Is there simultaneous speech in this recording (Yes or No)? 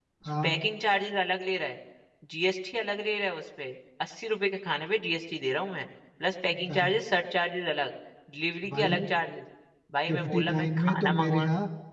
Yes